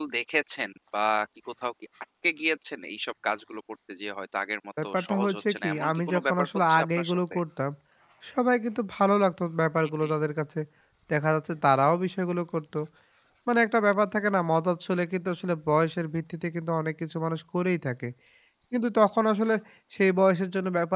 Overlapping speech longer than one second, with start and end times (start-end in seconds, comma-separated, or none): 4.8-7.4